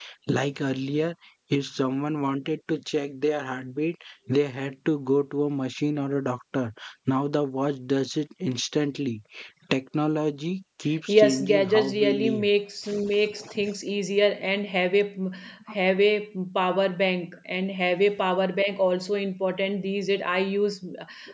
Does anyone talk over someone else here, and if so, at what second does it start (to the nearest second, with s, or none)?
11 s